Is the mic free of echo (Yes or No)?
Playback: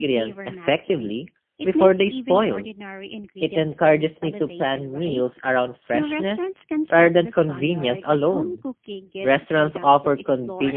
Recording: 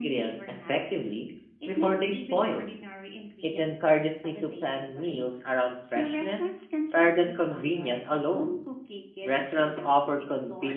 No